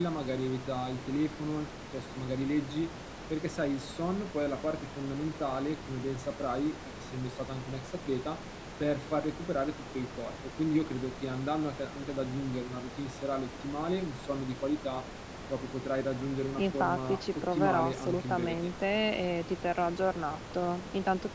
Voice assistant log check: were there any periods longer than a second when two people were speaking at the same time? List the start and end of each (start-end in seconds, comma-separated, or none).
16.6-18.7